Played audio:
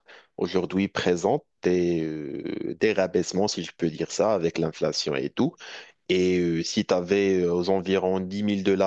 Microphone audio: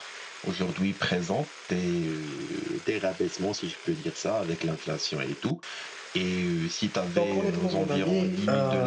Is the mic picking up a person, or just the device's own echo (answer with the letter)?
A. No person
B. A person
B